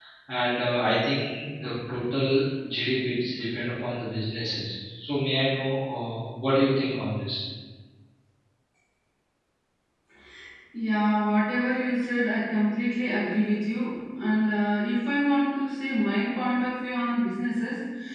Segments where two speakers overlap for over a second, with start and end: none

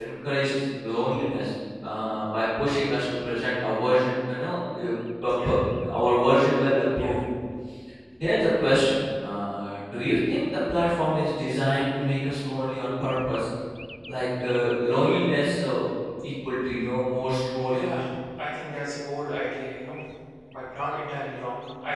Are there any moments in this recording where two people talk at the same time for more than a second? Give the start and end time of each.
none

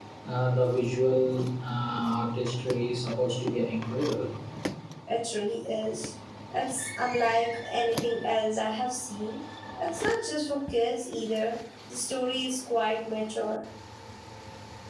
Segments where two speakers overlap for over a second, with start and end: none

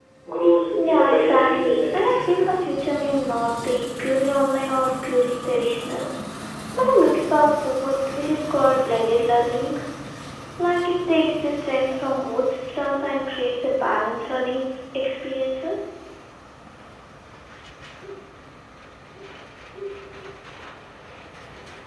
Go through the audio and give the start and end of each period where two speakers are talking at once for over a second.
0.8-2.1

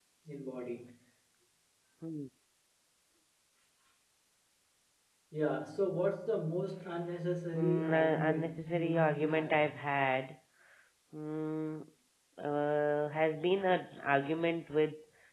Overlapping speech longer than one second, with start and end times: 7.5-9.7

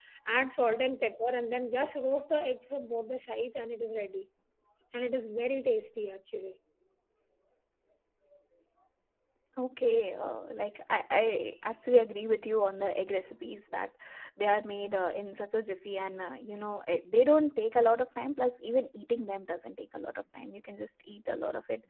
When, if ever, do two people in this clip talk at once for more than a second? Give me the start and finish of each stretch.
none

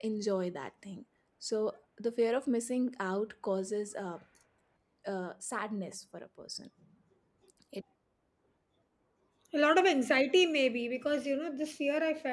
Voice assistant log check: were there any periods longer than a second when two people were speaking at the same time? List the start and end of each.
none

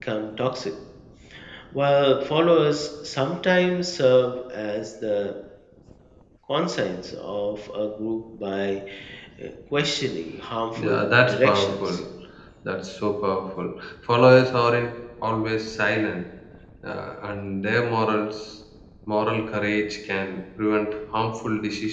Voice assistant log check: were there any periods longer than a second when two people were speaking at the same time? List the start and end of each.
10.8-12.0

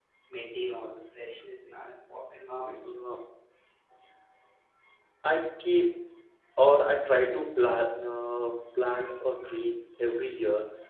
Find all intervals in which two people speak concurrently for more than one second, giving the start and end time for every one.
none

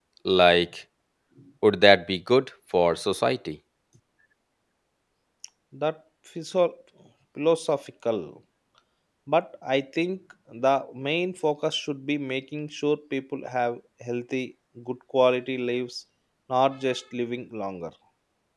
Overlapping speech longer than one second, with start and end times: none

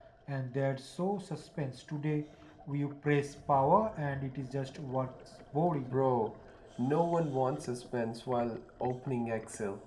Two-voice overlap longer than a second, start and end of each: none

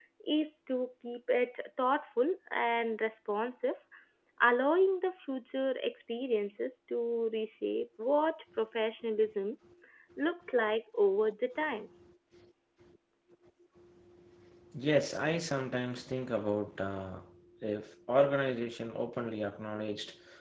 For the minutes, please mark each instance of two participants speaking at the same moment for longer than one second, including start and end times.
none

